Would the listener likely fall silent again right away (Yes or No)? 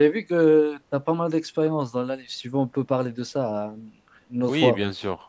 No